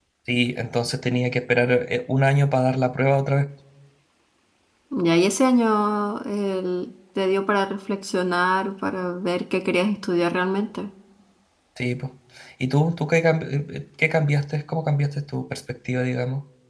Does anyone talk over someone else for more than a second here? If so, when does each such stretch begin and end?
none

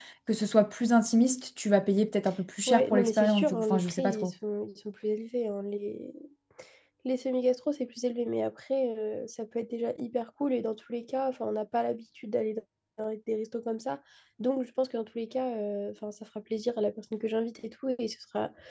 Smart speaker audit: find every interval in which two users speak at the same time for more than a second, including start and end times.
2.7-4.3

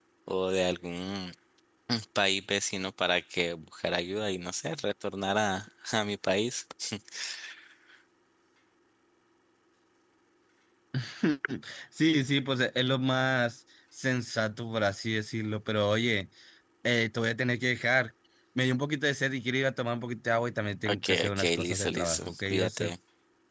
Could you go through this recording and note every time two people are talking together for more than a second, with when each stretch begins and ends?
20.9-22.9

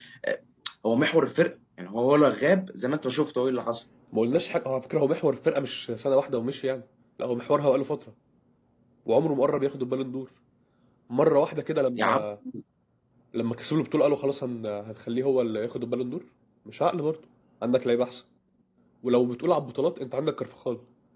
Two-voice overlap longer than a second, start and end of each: none

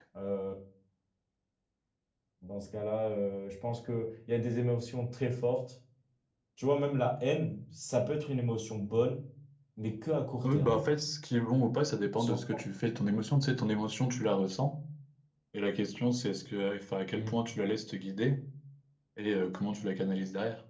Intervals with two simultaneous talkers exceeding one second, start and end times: none

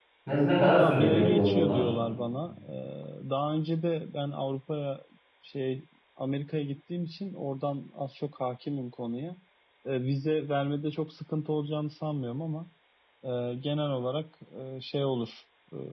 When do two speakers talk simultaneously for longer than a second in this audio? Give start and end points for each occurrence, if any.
0.6-1.9

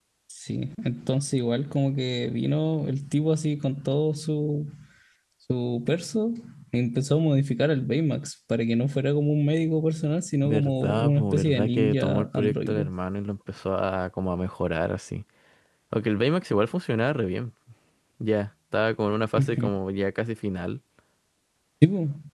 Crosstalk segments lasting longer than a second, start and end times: 10.4-12.9

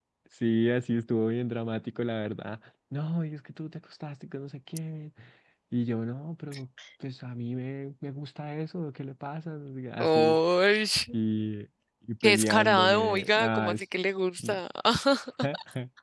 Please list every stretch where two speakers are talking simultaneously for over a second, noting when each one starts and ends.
12.2-13.8

